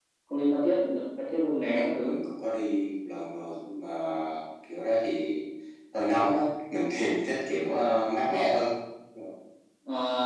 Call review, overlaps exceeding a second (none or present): none